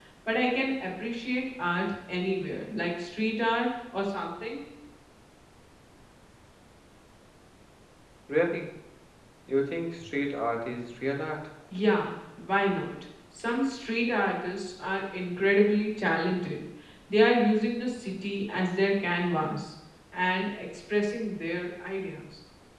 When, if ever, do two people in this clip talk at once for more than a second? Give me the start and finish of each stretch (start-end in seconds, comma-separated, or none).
none